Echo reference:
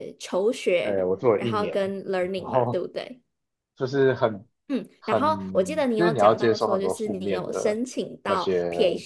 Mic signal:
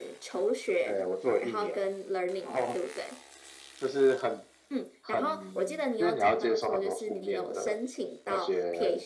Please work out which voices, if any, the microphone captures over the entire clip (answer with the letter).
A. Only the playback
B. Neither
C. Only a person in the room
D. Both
A